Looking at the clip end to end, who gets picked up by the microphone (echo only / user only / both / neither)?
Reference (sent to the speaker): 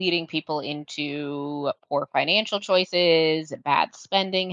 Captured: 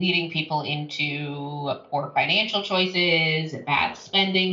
echo only